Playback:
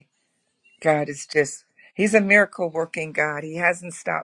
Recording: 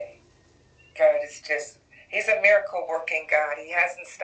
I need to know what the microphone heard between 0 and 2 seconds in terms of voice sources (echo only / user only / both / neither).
echo only